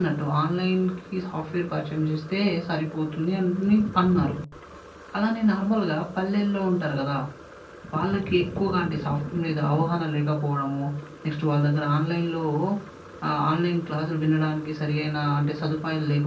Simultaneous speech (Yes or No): No